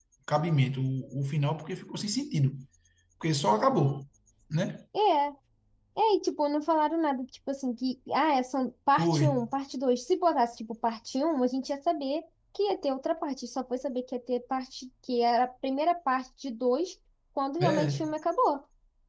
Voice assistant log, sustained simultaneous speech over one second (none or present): none